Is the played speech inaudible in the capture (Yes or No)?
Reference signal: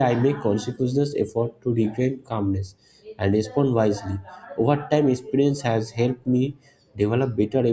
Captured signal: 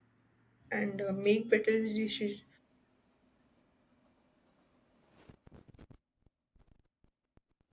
Yes